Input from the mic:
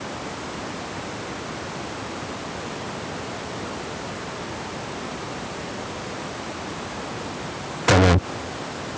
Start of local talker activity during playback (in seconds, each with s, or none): 7.9 s